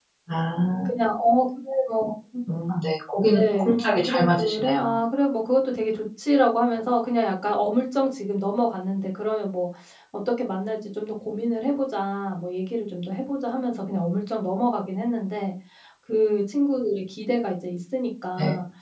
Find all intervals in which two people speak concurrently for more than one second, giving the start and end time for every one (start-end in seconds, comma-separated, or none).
3.3-5.0